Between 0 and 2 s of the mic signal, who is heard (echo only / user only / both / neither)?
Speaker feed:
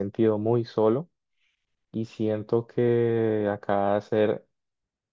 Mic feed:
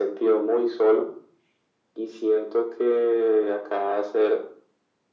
echo only